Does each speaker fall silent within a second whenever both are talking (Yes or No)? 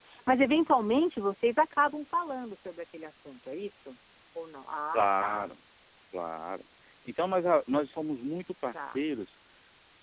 Yes